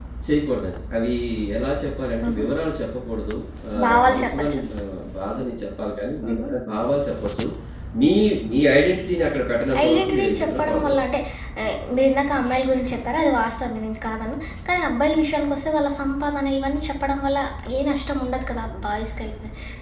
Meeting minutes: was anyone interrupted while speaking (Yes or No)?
Yes